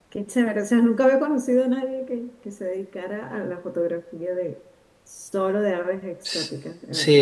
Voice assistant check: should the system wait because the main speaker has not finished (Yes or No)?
No